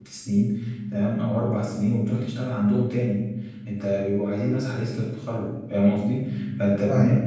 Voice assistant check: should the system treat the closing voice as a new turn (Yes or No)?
No